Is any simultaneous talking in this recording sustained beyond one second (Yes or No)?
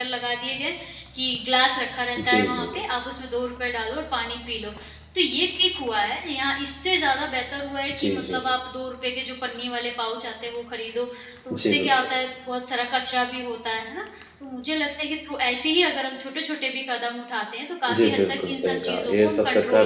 Yes